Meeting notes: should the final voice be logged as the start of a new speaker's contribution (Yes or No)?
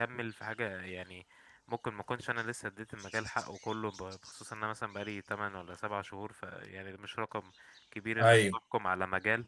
No